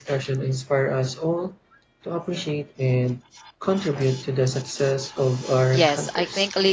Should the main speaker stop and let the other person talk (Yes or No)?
Yes